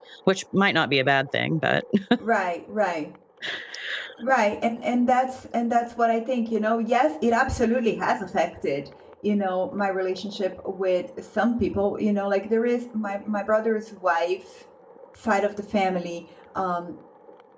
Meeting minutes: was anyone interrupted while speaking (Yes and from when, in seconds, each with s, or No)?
No